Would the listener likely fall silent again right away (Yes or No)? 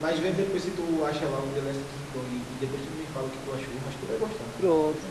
No